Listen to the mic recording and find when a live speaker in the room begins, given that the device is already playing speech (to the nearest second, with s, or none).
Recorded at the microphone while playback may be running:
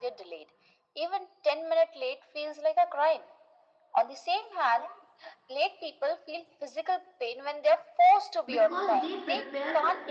8 s